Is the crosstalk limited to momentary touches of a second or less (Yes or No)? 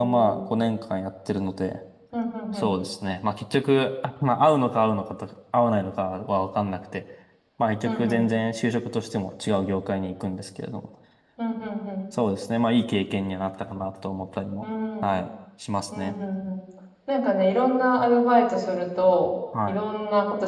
Yes